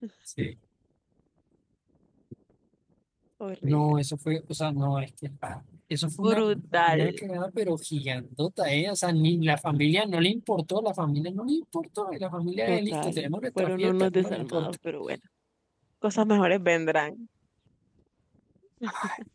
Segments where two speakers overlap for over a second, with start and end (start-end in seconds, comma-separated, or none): 12.7-14.8